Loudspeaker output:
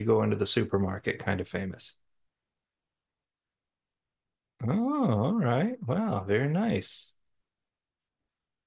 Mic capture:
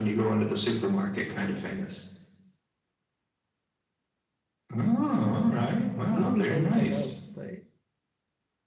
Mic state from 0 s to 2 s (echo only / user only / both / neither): echo only